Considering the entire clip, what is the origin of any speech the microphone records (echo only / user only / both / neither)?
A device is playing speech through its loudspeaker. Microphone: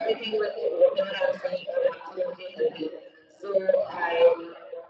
echo only